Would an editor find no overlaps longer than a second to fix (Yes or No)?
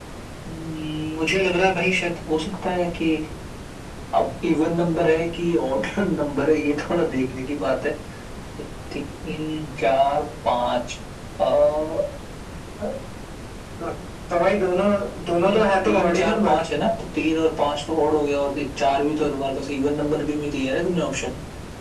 No